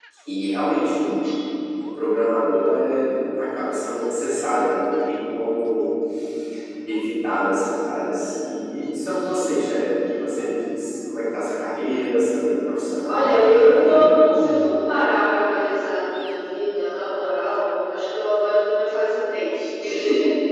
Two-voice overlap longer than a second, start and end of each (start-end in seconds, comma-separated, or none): 13.1-14.3